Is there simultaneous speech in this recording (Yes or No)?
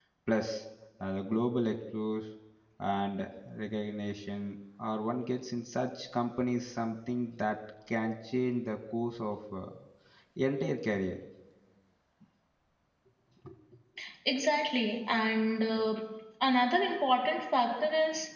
No